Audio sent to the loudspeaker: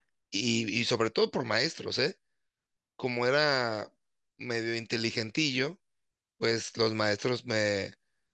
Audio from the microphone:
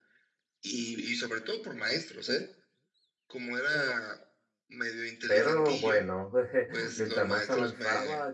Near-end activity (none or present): present